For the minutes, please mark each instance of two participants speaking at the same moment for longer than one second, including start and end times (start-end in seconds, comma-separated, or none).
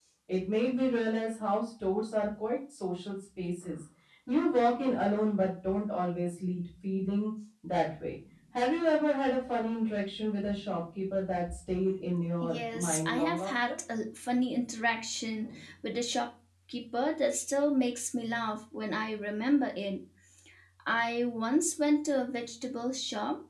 12.4-13.8